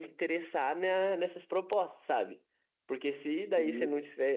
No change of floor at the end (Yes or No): Yes